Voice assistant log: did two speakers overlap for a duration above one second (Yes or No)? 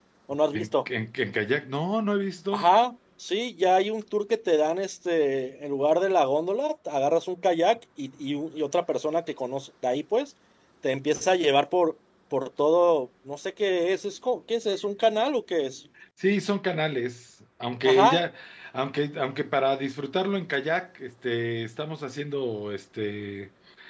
No